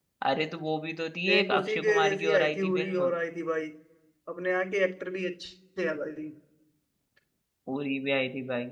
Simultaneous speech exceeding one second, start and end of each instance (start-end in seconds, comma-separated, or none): 1.3-3.1